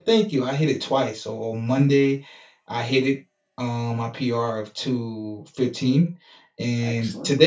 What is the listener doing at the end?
listening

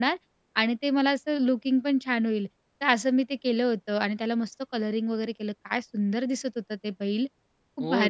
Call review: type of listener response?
taking over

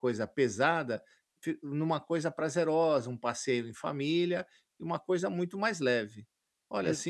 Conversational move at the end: listening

